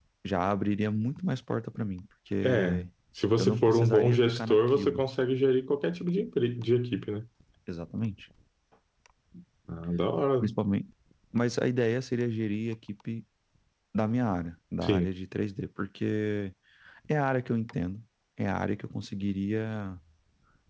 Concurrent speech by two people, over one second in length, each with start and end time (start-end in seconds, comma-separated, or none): 3.4-5.0